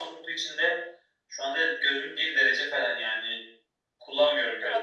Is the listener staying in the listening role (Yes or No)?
Yes